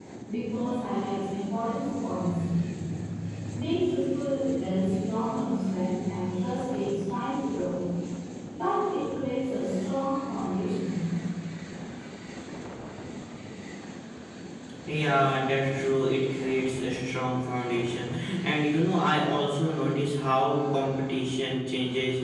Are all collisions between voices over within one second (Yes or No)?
Yes